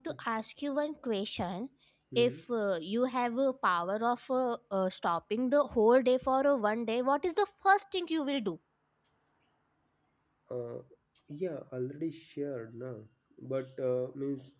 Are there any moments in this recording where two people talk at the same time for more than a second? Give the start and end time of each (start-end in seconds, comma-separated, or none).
none